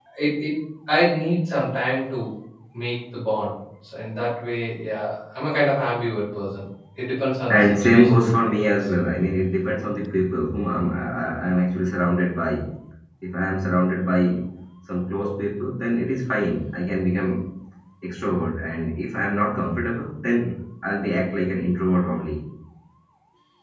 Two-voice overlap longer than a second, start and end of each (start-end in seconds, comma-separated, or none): 7.5-8.7